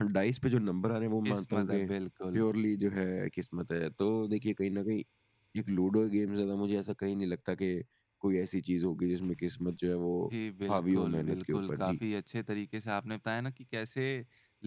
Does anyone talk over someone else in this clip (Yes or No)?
Yes